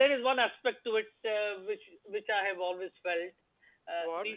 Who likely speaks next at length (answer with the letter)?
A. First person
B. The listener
A